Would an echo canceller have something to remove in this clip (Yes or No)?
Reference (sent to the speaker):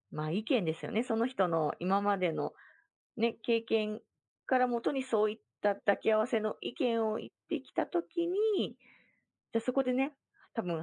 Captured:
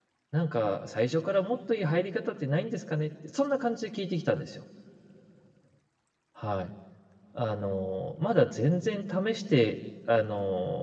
No